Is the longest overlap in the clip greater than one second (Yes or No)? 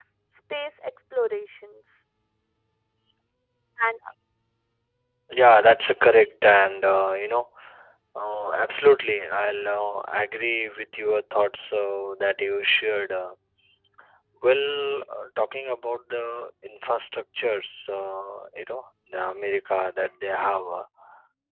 No